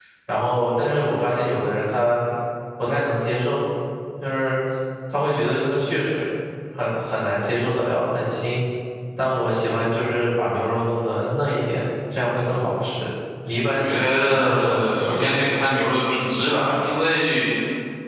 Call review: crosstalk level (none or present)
present